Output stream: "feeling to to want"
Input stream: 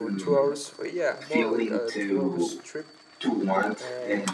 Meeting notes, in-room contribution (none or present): present